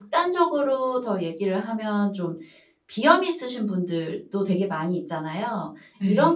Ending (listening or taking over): listening